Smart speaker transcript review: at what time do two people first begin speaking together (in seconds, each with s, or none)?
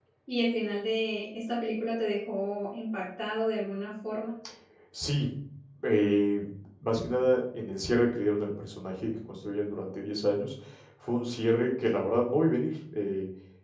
none